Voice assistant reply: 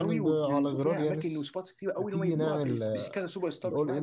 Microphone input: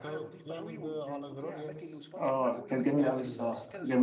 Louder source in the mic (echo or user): user